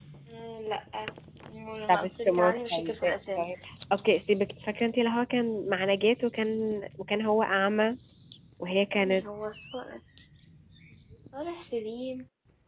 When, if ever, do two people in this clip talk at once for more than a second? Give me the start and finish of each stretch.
1.9-3.5

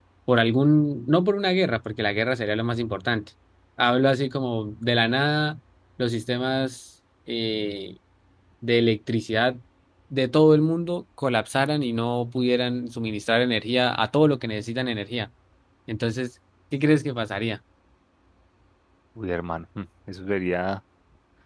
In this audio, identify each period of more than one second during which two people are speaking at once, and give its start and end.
none

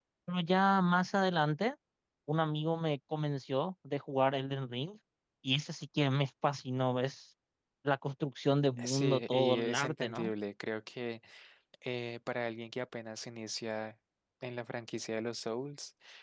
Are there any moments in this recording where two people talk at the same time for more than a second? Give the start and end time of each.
8.8-10.3

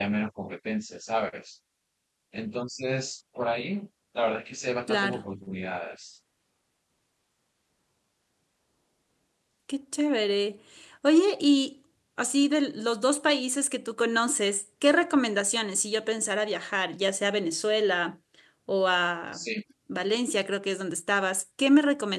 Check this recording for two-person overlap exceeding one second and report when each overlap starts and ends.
none

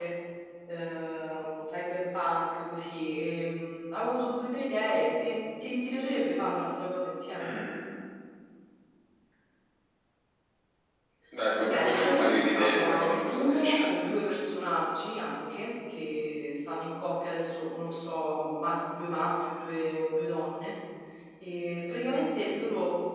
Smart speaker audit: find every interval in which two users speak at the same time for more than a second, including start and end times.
11.5-13.9

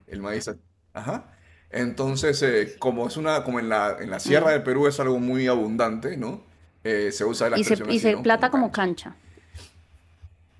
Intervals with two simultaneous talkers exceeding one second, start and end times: 7.5-8.8

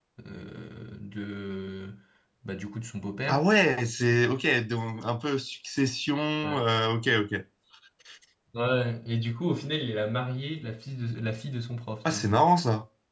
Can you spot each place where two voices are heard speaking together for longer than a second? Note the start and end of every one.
none

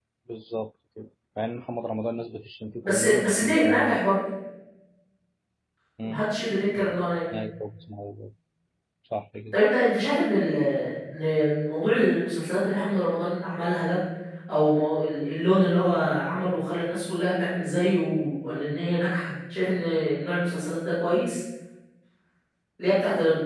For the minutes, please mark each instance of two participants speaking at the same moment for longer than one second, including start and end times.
2.8-4.0

